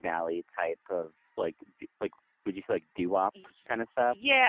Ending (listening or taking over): taking over